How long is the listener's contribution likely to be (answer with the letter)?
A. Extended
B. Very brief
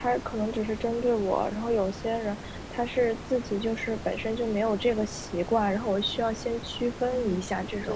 A